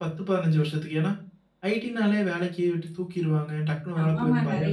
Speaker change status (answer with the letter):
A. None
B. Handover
B